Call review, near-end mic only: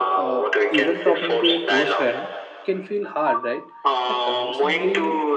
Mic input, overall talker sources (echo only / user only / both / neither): both